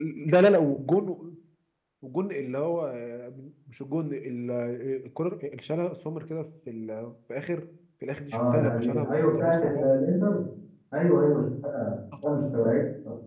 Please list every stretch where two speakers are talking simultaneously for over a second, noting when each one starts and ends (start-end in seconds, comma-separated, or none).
8.3-9.9